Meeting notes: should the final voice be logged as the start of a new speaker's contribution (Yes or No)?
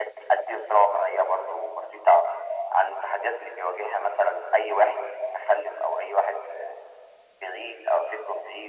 No